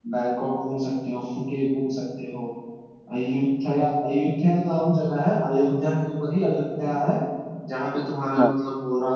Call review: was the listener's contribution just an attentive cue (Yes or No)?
Yes